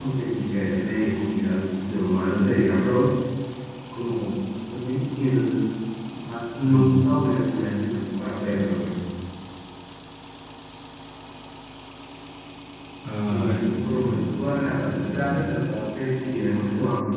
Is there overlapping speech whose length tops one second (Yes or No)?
Yes